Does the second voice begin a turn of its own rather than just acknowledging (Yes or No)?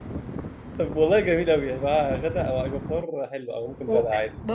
Yes